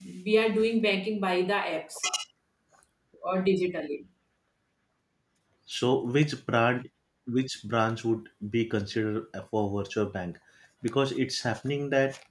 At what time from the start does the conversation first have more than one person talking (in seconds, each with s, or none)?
none